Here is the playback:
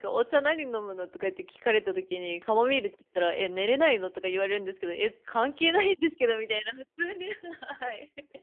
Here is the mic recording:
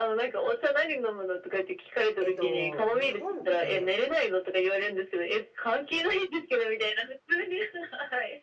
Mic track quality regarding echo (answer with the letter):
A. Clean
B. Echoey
B